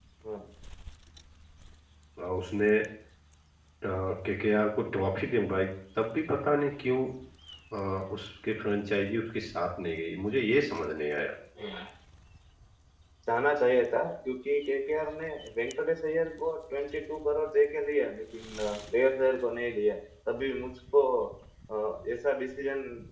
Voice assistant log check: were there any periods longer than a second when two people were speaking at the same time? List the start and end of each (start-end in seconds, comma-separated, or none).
none